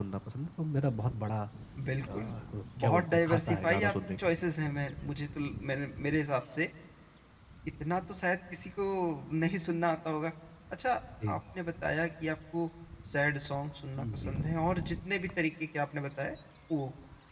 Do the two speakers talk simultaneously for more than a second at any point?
Yes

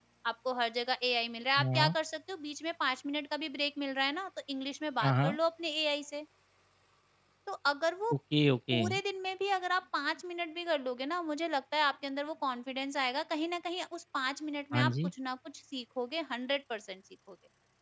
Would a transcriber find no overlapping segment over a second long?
Yes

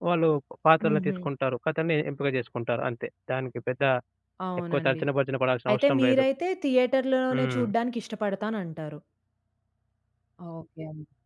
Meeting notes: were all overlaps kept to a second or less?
Yes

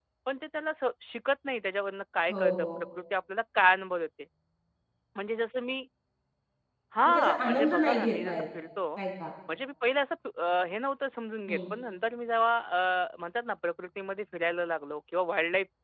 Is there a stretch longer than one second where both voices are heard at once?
Yes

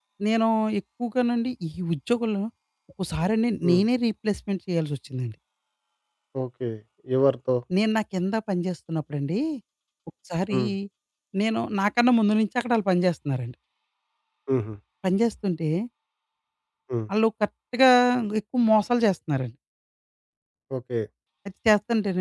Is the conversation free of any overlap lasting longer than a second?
Yes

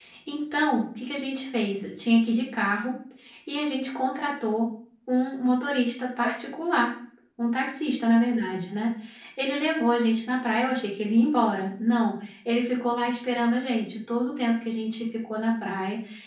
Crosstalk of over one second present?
No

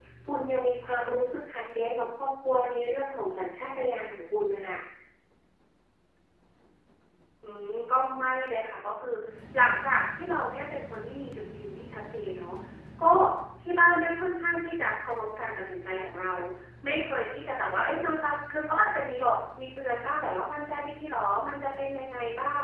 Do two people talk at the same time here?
No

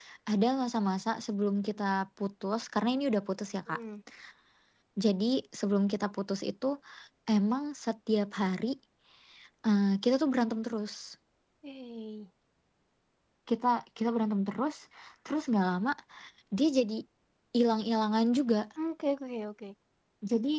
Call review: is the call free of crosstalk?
Yes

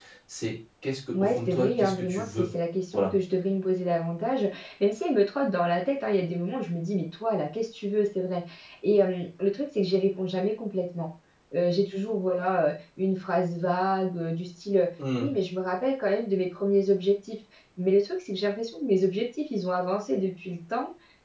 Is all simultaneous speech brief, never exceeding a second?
No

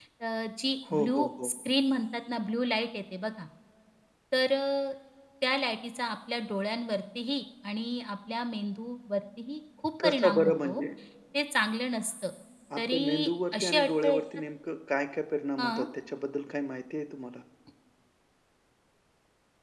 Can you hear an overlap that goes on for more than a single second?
Yes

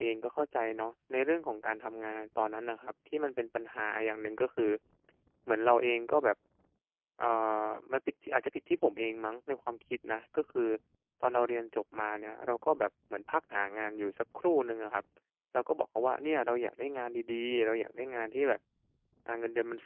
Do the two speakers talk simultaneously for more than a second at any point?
No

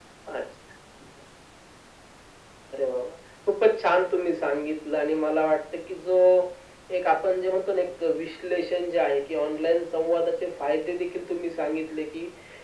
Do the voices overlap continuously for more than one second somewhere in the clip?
No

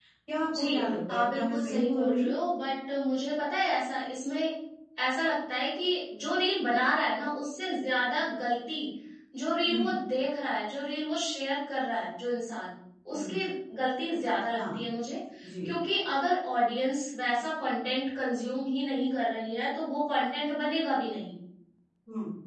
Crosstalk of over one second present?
Yes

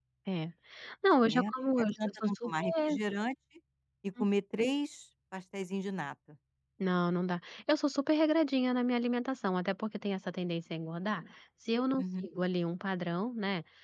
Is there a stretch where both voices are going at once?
Yes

